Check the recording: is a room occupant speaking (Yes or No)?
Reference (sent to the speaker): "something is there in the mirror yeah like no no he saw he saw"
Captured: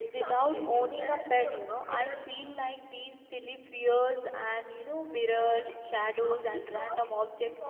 Yes